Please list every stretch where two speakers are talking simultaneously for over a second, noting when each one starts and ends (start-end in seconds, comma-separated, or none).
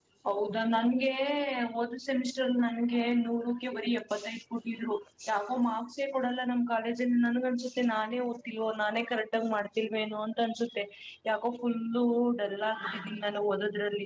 none